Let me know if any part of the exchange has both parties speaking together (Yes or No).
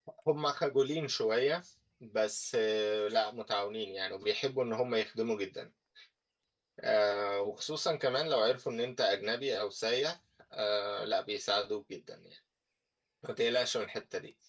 No